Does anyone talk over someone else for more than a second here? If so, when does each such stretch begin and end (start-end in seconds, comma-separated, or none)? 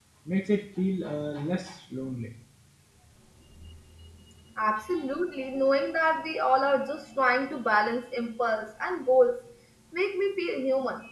none